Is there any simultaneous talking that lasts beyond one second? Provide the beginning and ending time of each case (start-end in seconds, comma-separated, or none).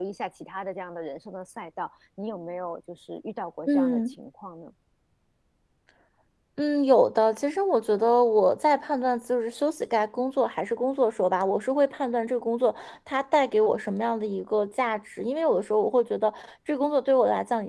none